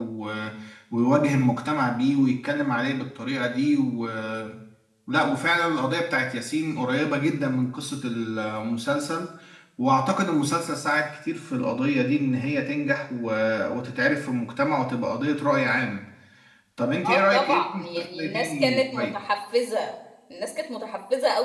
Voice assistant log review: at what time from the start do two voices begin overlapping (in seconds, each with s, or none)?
17.1 s